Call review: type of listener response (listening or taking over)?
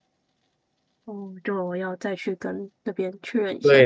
taking over